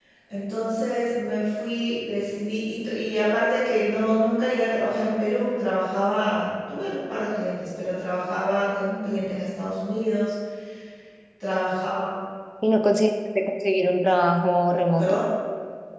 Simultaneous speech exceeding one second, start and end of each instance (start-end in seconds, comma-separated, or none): none